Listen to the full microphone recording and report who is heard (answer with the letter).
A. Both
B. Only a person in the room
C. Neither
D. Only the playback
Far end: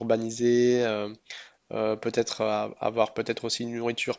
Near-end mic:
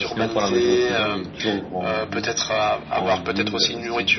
A